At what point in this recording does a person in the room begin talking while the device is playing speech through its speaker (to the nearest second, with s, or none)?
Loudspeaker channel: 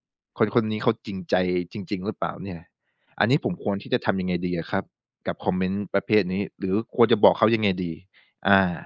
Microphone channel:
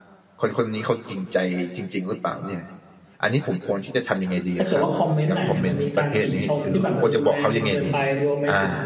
5 s